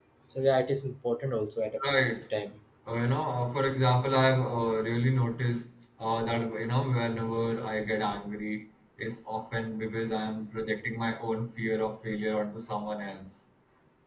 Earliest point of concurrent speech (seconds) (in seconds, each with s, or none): none